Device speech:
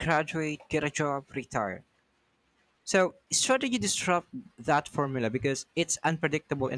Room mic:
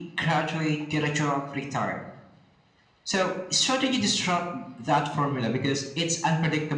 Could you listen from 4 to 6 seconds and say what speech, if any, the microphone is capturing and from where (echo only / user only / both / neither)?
echo only